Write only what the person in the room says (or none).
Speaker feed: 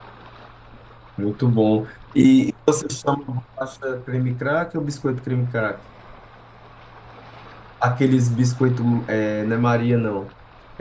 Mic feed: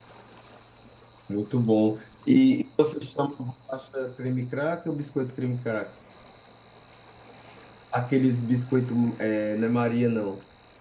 none